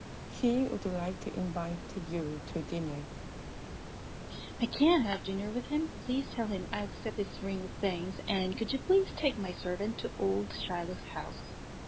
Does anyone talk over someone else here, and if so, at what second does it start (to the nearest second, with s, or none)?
none